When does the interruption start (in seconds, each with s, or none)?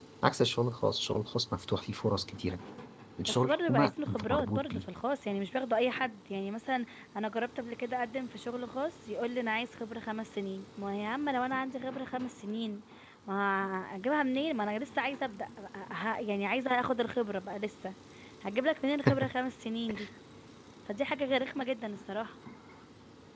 3.4 s